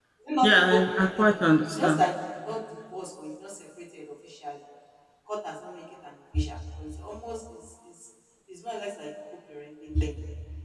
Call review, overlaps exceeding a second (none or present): present